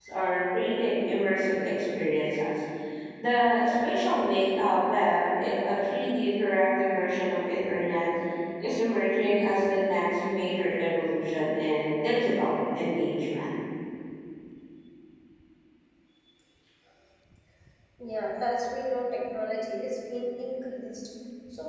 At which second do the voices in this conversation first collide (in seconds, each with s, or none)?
none